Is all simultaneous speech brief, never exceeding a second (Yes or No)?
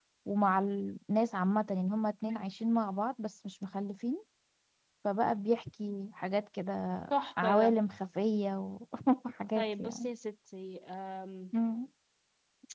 Yes